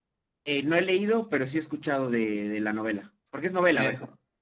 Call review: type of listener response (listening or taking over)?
taking over